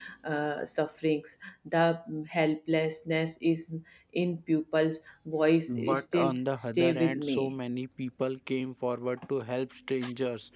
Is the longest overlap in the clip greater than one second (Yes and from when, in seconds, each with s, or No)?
Yes, from 5.7 s